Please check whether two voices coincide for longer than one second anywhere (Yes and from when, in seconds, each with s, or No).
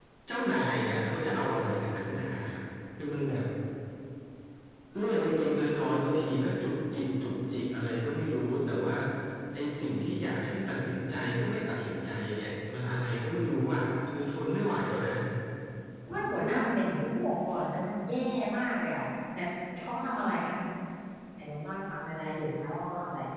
No